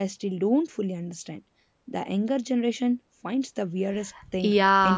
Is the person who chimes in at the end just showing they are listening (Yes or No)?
No